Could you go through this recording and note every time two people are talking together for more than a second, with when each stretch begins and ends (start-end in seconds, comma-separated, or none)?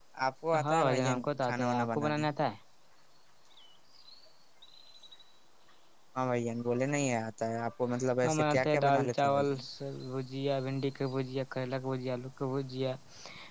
0.7-2.2, 8.2-9.6